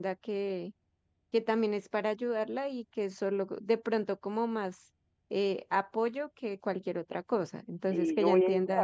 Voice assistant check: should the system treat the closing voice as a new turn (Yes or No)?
Yes